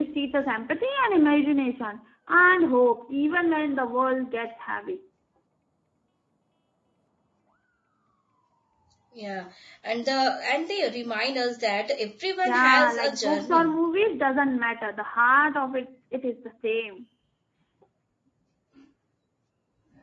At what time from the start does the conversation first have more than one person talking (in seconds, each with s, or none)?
12.4 s